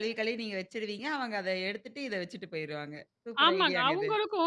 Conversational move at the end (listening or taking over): taking over